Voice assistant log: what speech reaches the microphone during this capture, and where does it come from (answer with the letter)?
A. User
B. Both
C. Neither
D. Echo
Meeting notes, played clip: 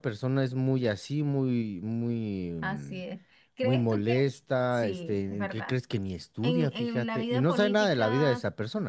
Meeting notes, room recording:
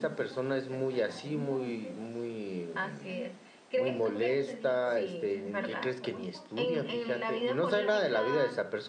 B